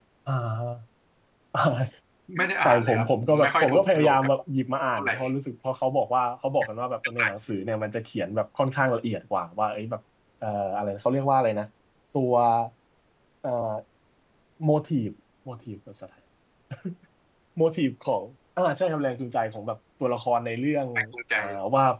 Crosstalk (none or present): present